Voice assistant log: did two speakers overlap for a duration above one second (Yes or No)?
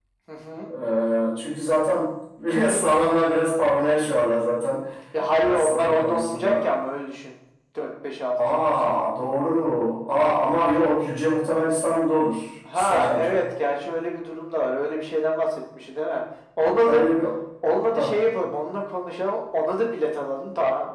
Yes